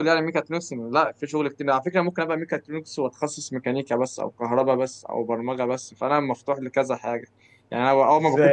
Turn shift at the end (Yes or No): Yes